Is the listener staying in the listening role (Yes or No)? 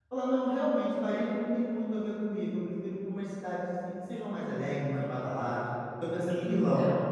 Yes